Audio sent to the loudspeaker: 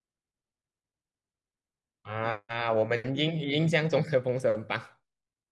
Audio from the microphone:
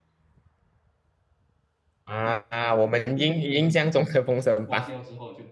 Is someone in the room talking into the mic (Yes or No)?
Yes